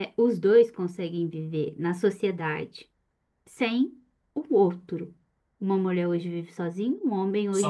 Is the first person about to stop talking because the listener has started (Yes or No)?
Yes